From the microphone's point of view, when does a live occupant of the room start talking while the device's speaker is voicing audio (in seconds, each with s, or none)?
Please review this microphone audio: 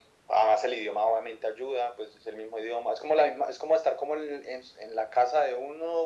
none